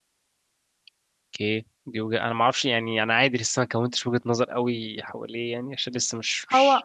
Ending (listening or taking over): taking over